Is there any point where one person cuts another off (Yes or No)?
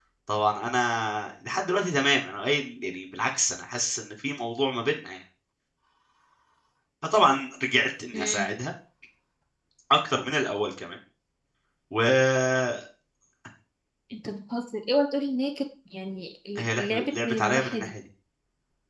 Yes